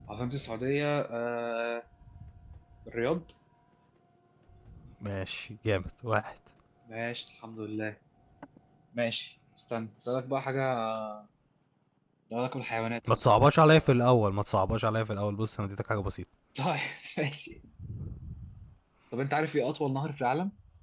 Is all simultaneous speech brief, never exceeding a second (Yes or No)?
Yes